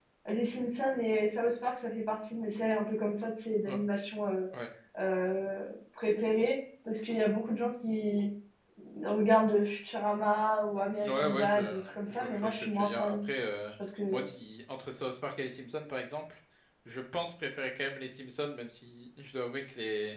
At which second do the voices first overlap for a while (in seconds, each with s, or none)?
11.0 s